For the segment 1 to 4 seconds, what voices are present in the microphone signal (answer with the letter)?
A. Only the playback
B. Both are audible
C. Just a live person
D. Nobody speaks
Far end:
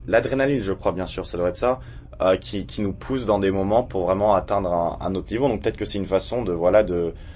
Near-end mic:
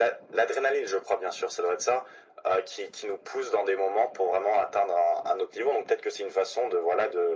A